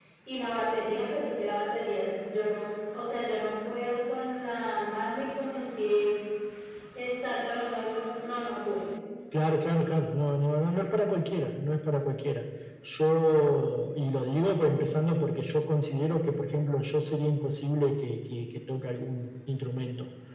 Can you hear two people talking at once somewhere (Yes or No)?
No